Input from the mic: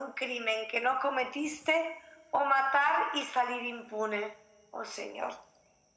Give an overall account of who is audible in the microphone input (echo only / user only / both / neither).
echo only